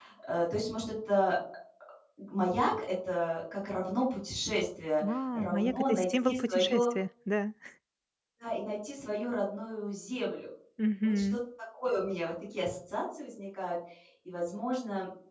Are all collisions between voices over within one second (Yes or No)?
No